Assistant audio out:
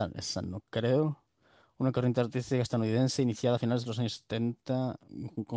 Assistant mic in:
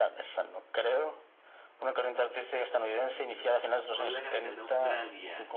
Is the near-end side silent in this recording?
No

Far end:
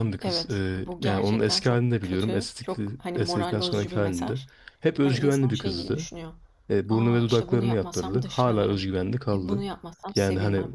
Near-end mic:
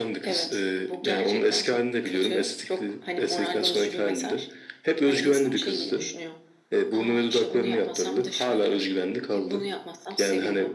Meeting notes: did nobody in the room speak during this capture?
Yes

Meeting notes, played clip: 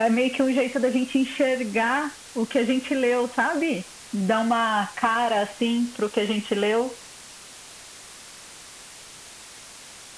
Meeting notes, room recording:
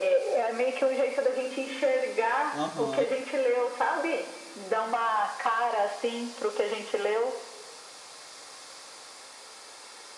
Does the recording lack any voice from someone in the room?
No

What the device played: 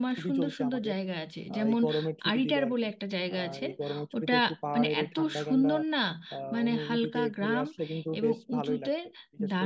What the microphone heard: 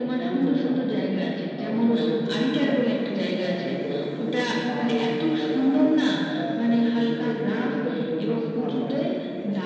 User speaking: Yes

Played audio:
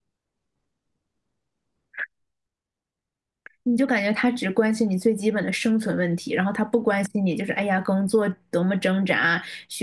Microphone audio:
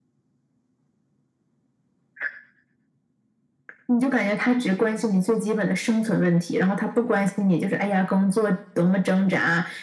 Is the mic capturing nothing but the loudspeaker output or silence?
Yes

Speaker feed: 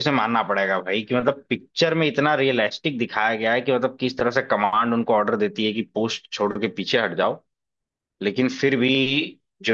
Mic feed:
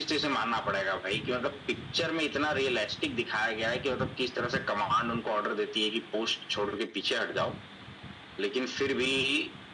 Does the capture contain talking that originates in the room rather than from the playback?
No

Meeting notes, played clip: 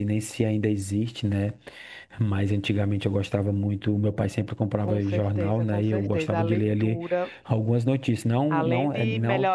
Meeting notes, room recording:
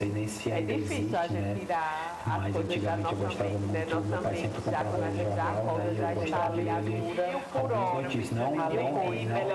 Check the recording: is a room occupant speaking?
Yes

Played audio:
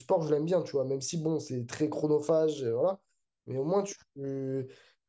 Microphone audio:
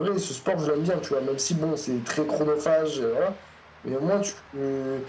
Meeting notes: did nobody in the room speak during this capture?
Yes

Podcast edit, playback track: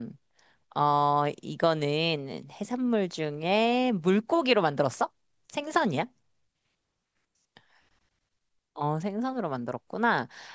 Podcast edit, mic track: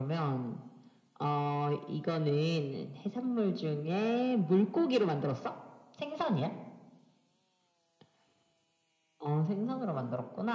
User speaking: No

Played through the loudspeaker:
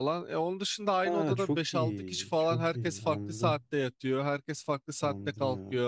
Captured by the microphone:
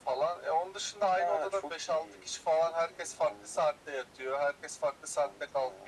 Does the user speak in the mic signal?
No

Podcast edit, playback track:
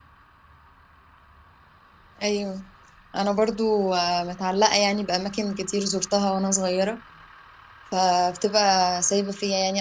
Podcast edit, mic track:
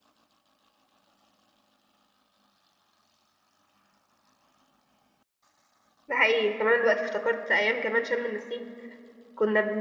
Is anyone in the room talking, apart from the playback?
Yes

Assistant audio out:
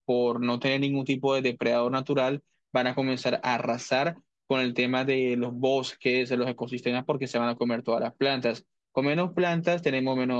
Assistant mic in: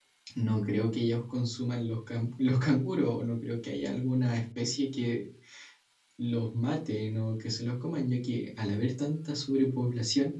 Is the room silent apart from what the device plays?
No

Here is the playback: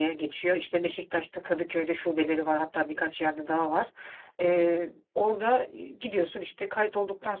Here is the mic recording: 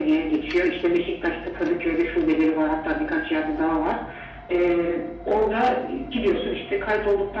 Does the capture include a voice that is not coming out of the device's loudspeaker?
No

